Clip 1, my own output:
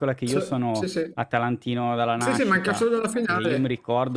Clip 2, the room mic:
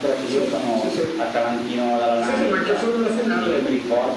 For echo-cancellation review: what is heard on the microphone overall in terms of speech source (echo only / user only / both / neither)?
echo only